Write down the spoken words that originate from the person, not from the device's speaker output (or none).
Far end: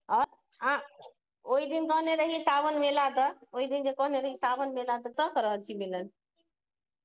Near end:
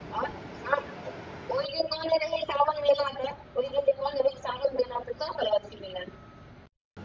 none